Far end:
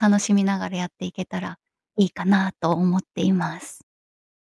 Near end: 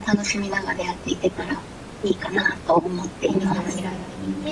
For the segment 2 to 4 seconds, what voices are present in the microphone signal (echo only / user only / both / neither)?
both